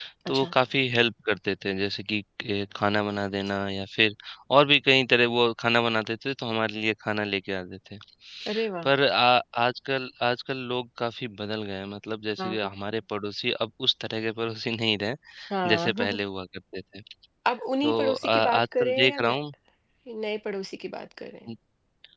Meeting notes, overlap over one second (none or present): present